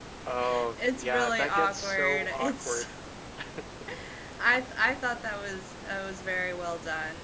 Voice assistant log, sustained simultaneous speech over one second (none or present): present